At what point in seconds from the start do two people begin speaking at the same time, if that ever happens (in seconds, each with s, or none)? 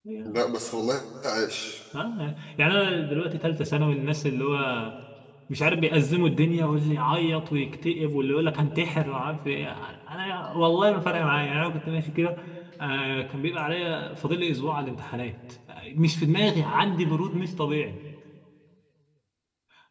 none